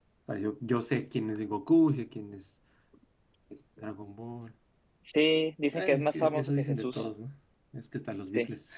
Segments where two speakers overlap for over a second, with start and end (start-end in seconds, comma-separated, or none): 5.7-7.0